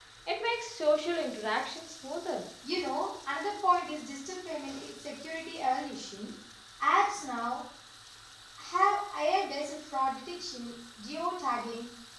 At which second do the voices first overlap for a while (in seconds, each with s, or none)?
none